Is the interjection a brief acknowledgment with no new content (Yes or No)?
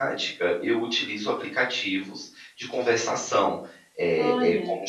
Yes